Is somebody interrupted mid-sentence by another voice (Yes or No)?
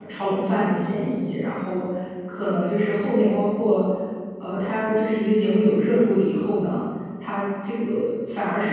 No